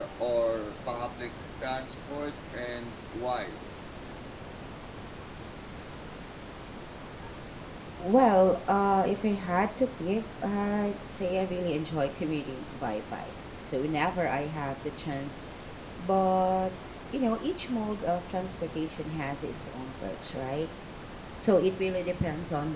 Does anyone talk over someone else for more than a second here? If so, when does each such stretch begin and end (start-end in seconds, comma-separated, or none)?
none